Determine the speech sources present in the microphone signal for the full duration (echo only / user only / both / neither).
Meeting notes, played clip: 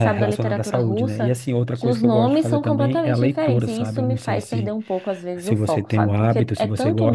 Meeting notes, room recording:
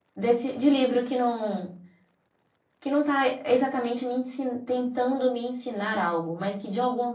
user only